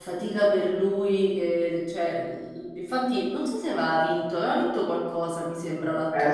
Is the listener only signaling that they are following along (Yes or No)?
No